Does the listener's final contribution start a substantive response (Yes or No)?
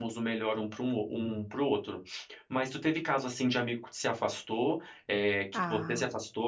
No